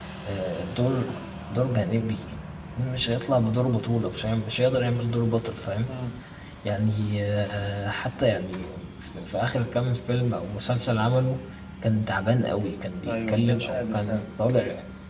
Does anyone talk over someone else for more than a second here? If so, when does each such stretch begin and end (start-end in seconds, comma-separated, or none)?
13.1-14.3